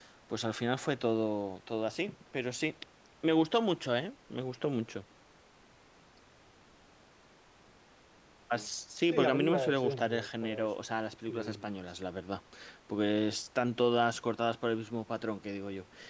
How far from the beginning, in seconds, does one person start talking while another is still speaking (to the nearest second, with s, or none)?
9 s